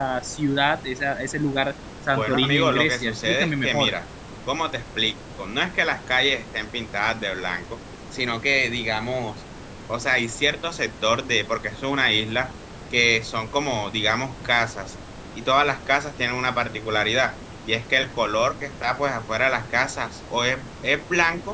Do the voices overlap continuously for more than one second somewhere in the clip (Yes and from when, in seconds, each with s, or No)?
Yes, from 2.1 s